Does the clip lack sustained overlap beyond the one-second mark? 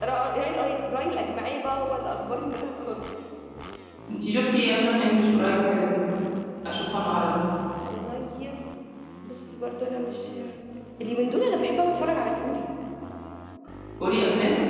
Yes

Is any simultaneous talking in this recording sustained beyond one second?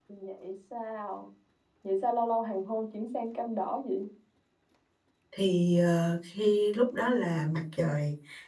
No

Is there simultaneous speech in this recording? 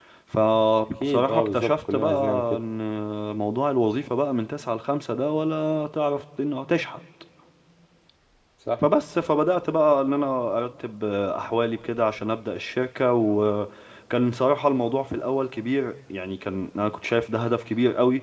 Yes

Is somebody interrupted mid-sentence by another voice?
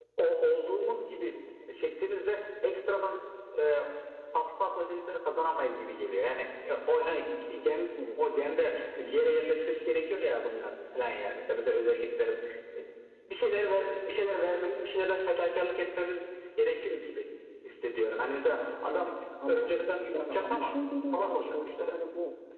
Yes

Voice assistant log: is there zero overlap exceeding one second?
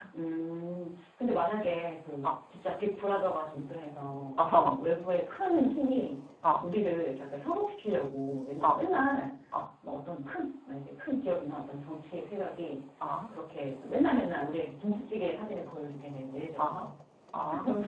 Yes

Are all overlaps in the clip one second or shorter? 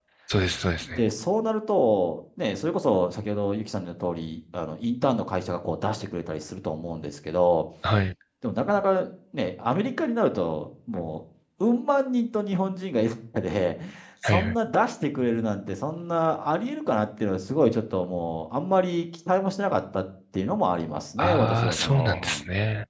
No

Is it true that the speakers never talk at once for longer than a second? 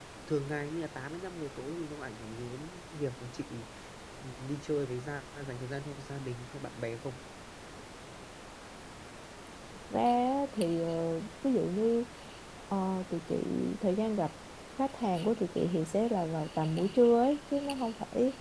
Yes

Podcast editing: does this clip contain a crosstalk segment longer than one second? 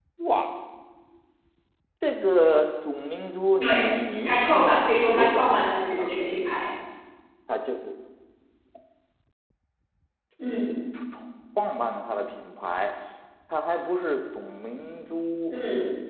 Yes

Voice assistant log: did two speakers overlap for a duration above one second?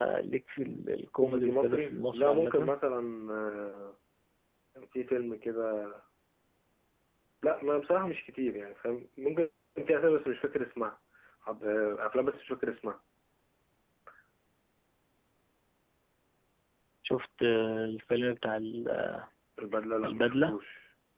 Yes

